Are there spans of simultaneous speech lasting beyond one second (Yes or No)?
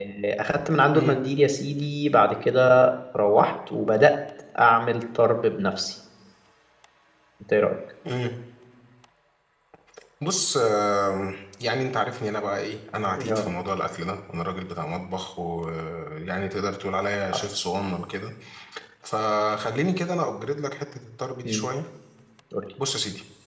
No